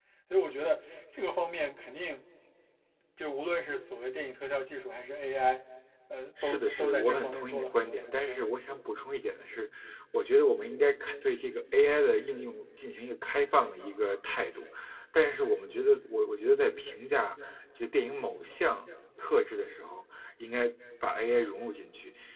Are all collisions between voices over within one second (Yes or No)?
No